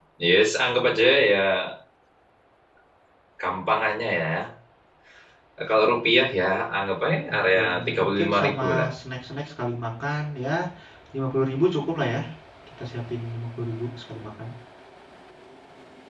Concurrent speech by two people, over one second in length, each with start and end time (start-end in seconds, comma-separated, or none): 7.3-8.9